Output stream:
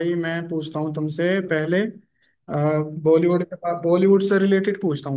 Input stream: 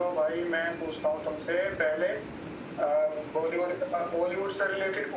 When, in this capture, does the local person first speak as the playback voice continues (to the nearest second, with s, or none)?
none